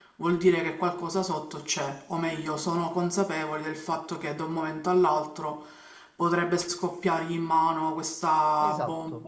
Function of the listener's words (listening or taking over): listening